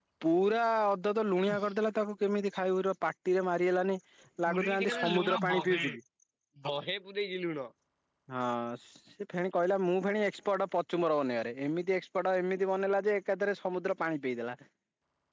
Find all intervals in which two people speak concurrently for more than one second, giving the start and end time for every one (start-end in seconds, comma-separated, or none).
4.5-5.8